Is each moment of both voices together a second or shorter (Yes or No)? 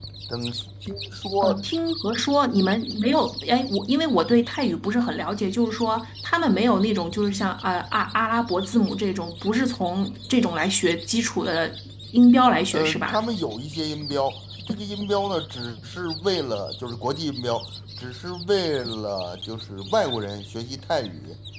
Yes